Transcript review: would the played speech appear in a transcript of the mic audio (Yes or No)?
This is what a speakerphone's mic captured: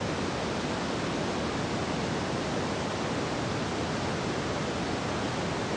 No